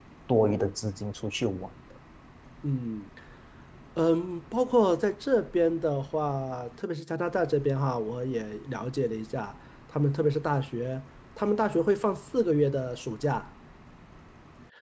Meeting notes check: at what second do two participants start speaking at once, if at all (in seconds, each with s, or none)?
none